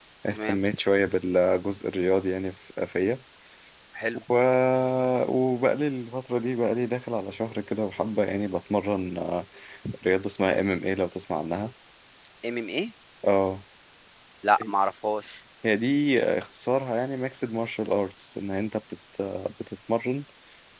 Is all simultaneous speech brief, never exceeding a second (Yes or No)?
Yes